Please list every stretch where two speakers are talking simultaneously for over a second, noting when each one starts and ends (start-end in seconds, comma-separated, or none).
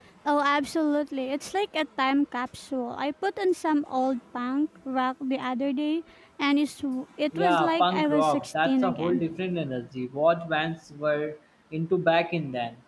7.3-9.4